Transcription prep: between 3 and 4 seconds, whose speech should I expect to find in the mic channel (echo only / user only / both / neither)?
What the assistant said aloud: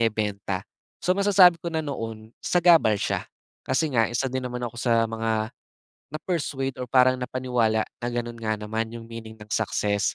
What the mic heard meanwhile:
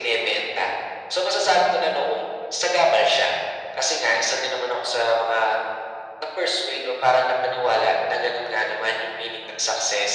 echo only